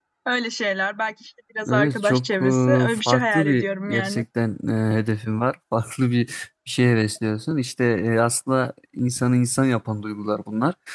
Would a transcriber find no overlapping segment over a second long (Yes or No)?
No